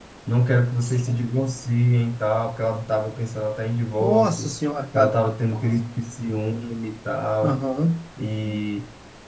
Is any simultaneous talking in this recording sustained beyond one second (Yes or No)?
No